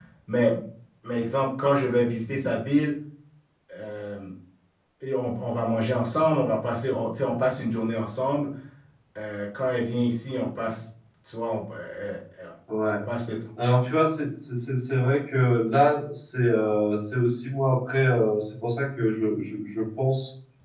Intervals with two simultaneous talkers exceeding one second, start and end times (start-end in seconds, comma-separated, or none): none